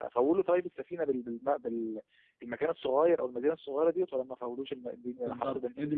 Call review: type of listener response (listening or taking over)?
taking over